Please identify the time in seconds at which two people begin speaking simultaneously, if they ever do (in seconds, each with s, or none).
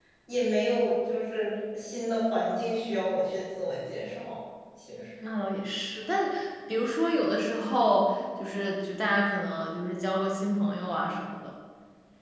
none